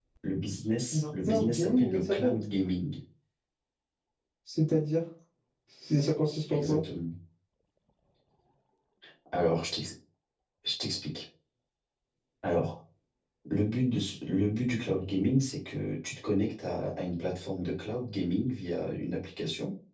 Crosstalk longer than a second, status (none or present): present